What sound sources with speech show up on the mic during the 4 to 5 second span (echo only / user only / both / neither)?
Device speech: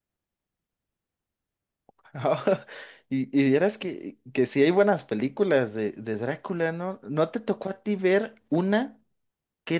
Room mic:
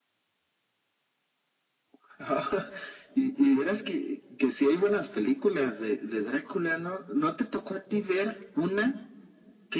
echo only